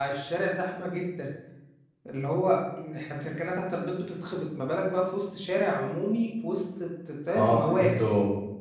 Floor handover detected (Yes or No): Yes